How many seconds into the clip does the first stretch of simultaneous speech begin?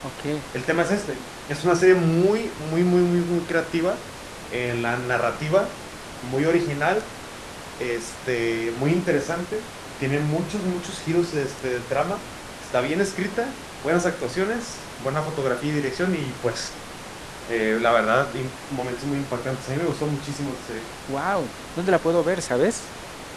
none

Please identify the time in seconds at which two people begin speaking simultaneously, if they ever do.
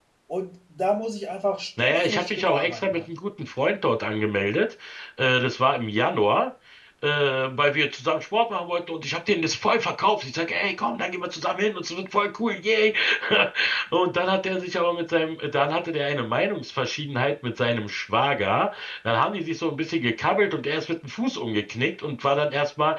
1.8 s

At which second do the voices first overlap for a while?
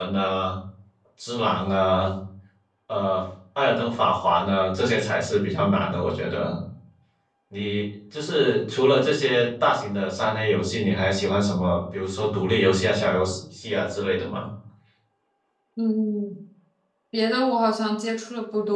none

